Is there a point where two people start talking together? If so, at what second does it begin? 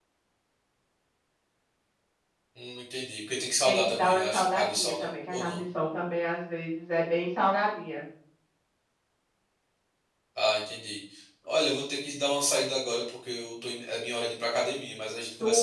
4 s

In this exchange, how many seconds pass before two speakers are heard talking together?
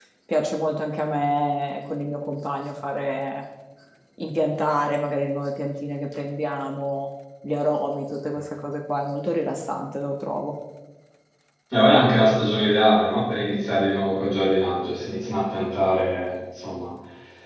none

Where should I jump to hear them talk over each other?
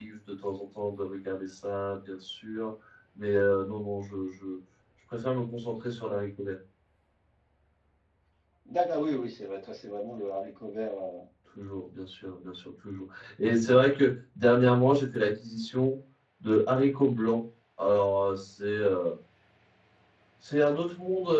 none

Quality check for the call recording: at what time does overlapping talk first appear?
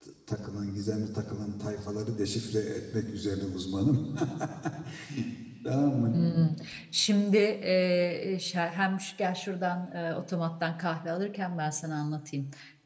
none

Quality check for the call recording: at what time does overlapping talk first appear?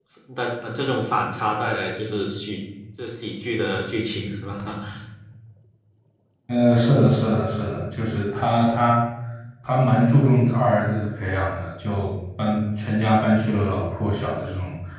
none

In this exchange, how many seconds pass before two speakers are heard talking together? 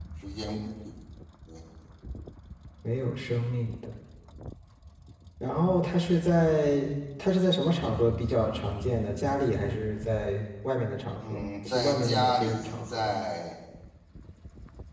11 s

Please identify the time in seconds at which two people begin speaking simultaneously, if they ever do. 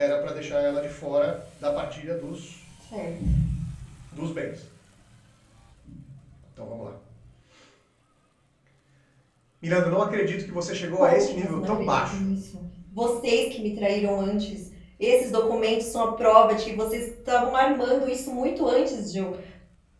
11 s

